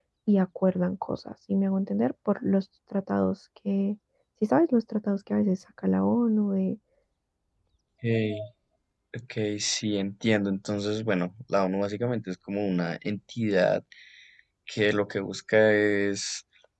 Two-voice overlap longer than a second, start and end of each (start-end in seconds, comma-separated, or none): none